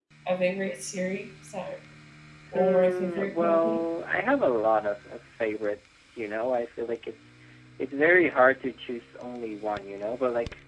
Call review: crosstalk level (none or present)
present